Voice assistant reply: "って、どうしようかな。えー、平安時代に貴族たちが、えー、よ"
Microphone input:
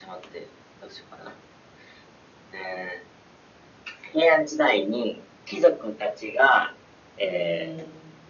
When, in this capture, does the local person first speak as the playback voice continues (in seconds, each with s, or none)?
7.2 s